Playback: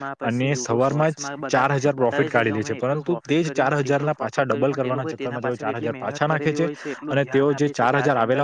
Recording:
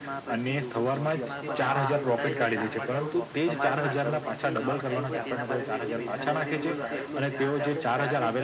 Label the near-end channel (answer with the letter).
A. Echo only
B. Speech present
B